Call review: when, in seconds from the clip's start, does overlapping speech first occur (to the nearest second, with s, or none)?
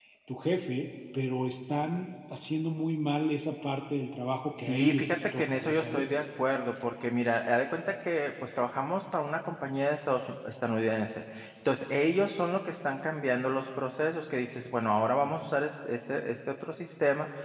5 s